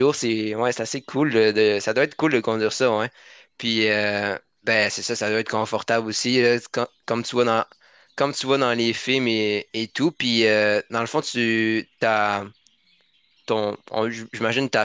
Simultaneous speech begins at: none

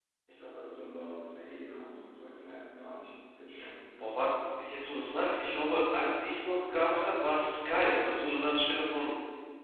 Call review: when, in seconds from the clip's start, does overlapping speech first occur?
none

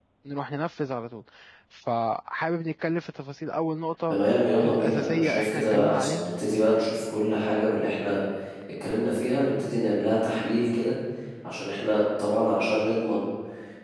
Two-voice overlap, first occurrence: 4.6 s

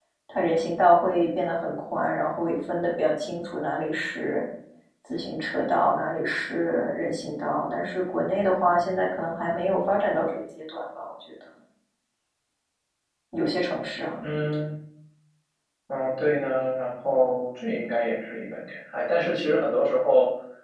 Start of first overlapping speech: none

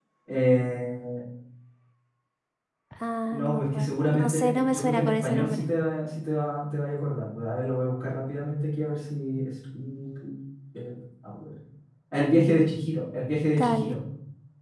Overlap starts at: 3.3 s

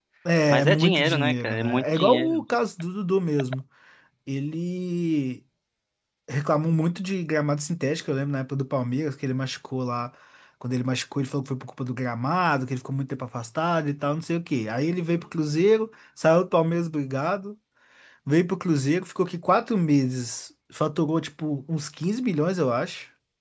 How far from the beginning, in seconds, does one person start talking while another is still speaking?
0.5 s

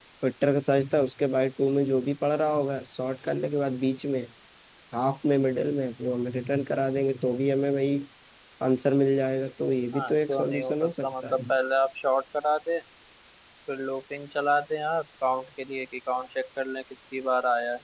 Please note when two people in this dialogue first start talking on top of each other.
9.9 s

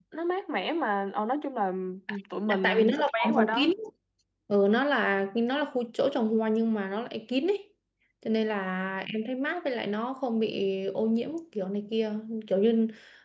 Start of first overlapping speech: 2.5 s

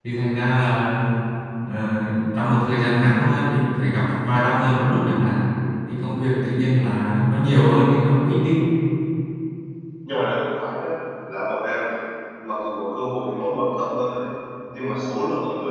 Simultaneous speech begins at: none

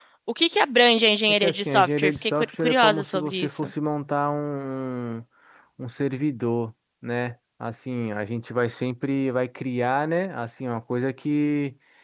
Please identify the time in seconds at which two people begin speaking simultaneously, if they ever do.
1.3 s

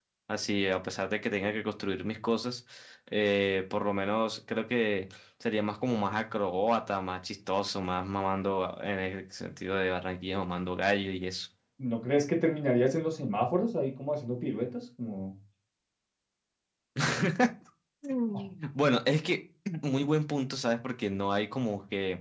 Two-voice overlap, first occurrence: none

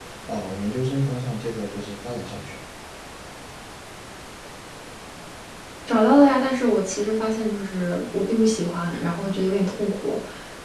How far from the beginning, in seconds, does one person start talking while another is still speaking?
none

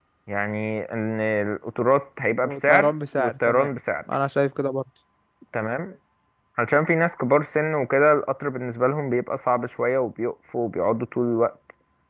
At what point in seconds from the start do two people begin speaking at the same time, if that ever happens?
2.4 s

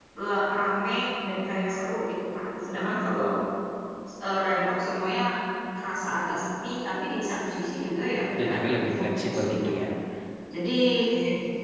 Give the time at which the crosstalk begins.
8.4 s

